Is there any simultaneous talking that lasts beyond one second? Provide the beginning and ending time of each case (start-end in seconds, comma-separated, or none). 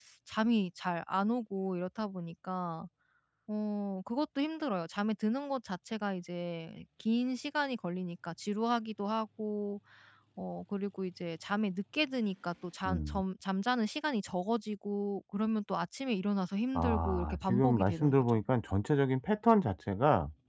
16.8-18.4